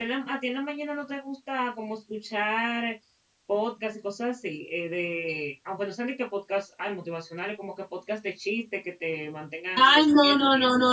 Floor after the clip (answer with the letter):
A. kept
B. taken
B